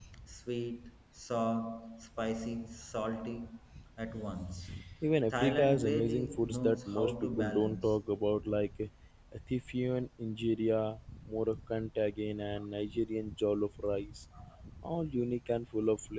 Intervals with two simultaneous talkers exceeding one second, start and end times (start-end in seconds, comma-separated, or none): 5.3-8.0